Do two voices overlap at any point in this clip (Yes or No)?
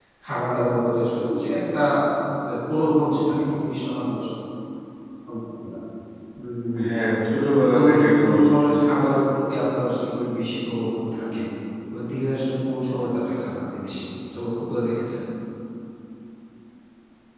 Yes